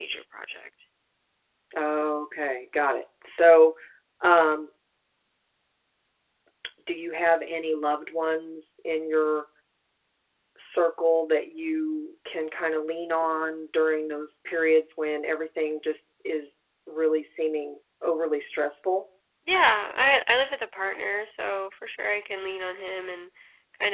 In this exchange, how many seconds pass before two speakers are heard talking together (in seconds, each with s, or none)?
none